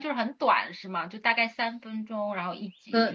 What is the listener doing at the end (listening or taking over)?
taking over